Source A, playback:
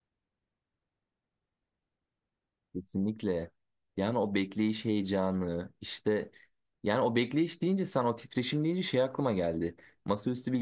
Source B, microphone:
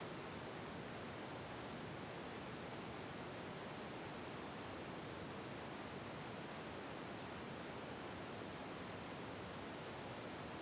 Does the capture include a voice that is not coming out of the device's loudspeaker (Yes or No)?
No